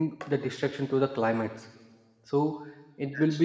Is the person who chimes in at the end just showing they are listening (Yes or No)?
Yes